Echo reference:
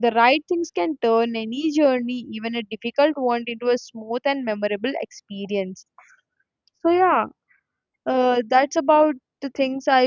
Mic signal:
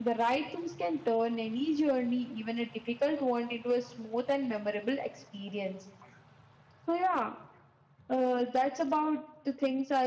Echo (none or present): present